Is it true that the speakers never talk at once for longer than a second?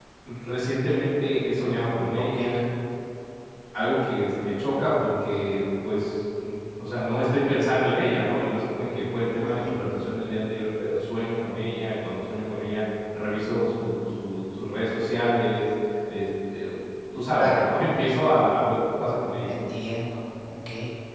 Yes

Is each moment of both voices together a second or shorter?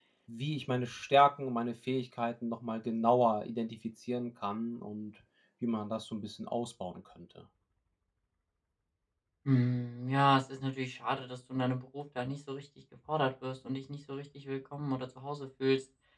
Yes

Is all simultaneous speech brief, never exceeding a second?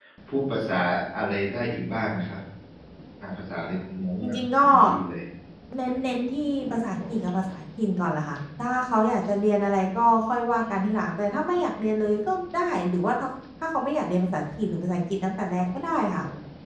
Yes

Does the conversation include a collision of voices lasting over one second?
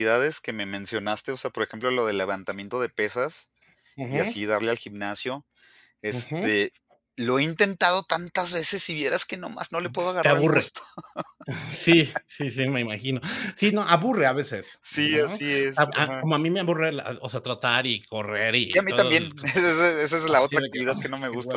Yes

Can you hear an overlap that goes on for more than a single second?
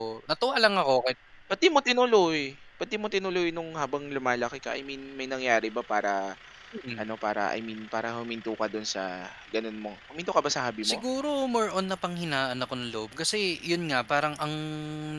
No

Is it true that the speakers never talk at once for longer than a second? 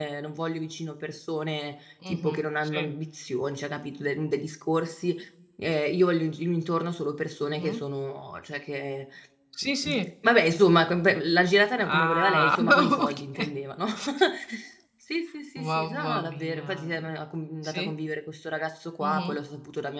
No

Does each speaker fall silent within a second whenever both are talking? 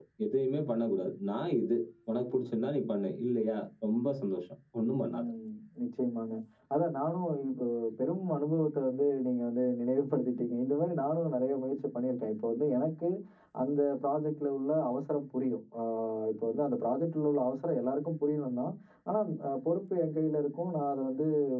Yes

